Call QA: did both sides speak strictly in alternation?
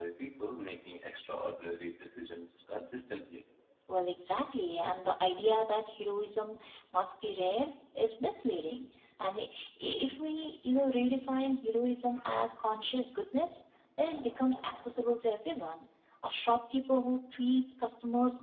Yes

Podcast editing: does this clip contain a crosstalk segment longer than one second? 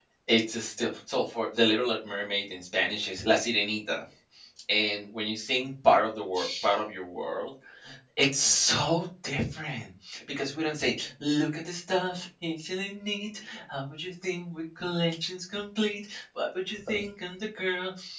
No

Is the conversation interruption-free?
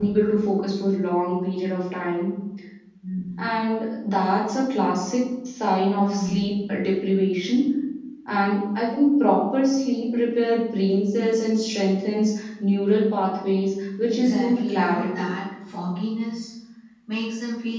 No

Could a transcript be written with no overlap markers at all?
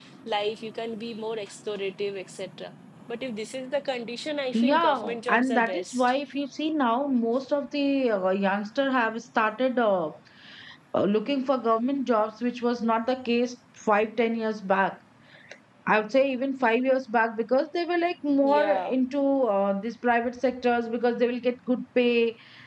No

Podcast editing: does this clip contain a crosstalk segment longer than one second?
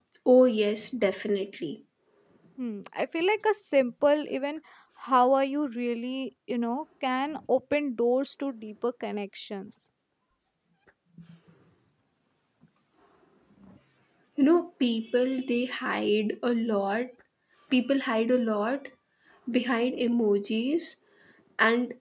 No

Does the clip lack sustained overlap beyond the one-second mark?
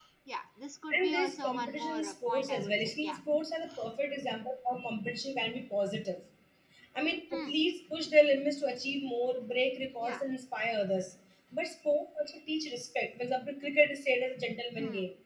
No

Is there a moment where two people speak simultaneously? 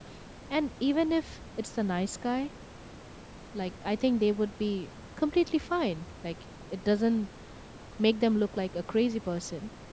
No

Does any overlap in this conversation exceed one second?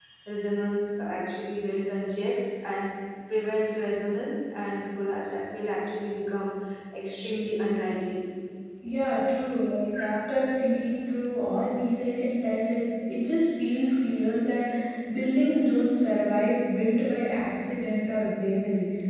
No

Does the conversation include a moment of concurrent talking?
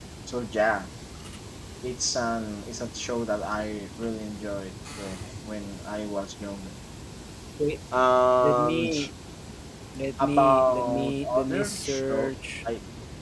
Yes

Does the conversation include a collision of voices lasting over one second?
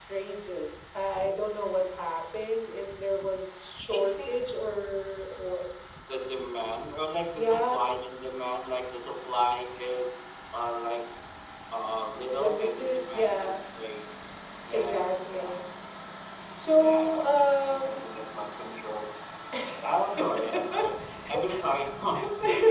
Yes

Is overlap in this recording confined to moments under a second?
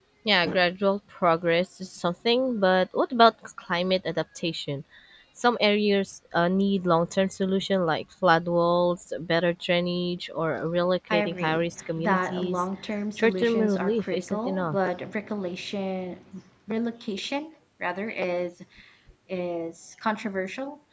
No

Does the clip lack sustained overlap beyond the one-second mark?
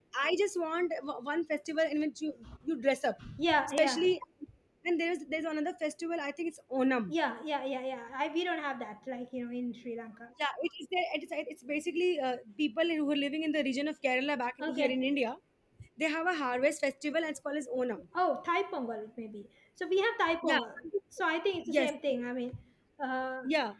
Yes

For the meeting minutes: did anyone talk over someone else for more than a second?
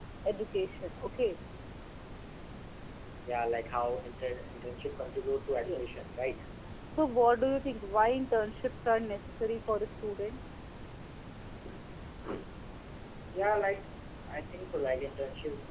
No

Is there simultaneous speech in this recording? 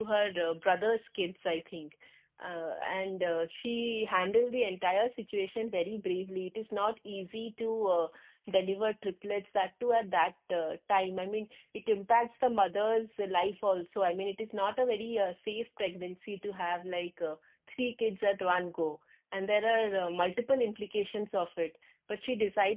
No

